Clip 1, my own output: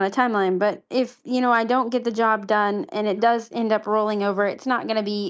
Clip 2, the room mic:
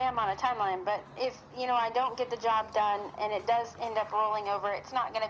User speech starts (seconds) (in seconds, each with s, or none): none